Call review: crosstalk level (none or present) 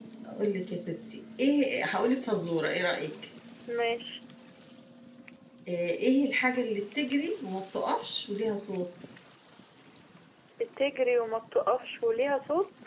none